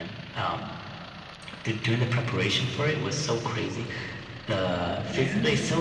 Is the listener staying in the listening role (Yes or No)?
Yes